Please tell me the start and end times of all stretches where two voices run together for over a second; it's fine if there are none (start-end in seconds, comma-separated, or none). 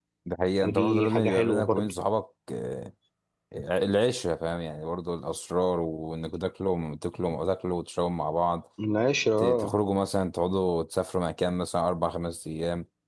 0.6-1.9